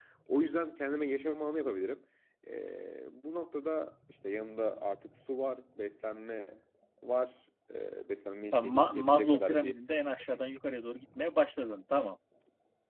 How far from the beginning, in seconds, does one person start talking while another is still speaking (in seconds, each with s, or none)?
8.5 s